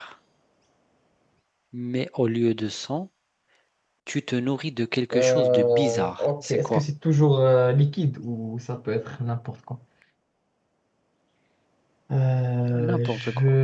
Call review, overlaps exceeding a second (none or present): present